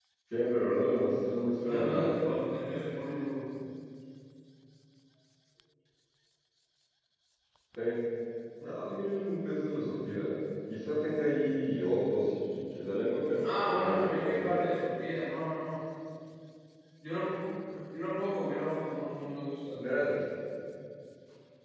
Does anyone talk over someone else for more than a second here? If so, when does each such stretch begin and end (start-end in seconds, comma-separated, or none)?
13.4-14.8